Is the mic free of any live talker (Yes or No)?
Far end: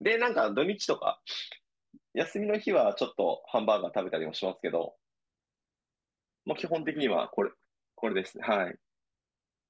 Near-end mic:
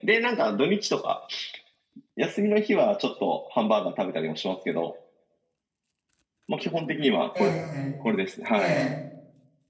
No